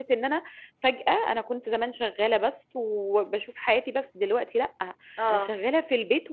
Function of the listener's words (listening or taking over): listening